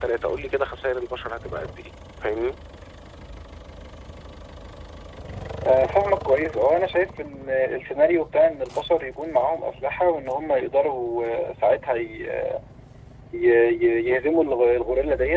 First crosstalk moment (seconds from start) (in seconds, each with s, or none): none